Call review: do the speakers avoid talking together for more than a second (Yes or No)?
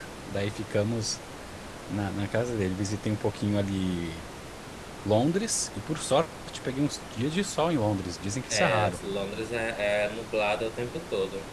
Yes